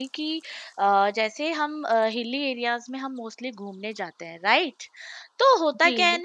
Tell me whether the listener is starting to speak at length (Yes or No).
No